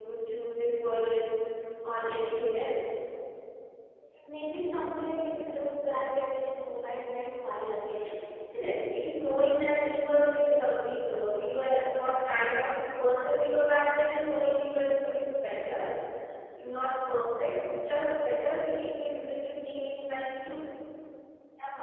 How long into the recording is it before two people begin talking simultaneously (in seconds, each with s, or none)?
none